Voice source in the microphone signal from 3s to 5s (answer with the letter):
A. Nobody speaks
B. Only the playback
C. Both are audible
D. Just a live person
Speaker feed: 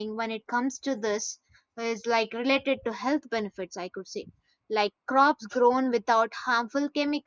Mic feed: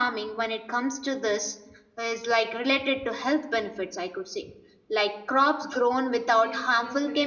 B